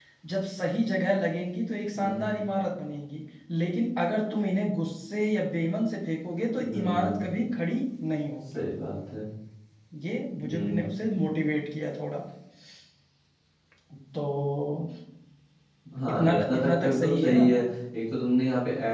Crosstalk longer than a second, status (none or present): present